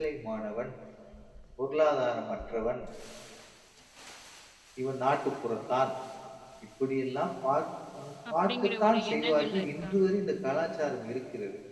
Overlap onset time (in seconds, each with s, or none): 8.2 s